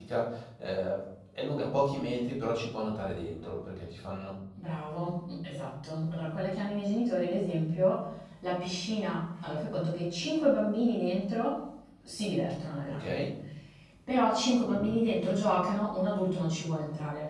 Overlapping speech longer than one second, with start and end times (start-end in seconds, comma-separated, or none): none